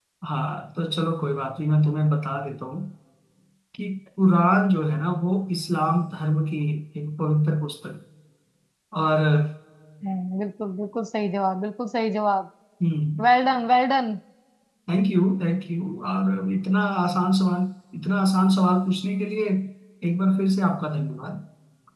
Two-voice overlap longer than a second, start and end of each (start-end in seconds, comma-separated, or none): none